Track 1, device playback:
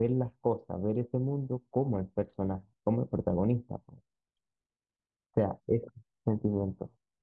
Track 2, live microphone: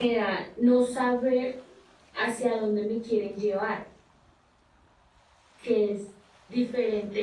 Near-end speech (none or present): present